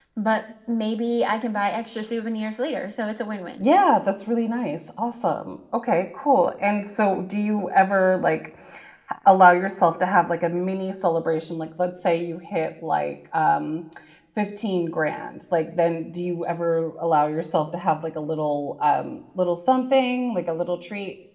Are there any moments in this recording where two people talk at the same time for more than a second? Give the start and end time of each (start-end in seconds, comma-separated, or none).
none